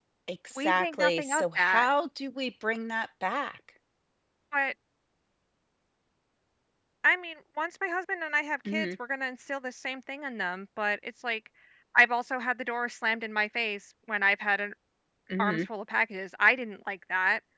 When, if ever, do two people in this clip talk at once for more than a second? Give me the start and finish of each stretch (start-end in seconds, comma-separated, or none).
0.6-1.9